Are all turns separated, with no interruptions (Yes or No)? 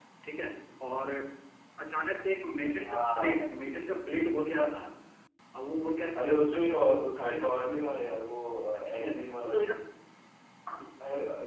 No